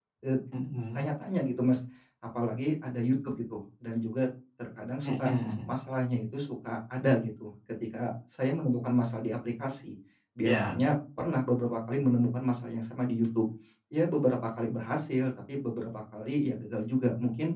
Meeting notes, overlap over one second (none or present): none